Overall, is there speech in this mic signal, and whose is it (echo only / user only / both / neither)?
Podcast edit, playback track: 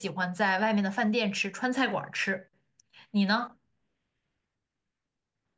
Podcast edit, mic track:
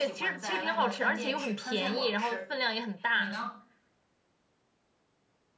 both